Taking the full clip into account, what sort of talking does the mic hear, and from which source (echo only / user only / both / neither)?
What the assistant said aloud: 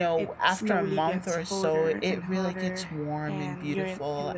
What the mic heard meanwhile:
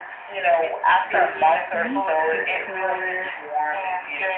both